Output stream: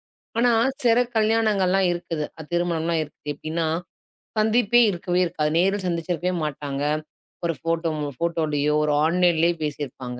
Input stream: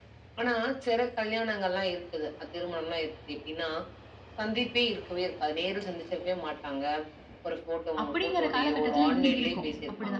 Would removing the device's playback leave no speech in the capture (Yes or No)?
No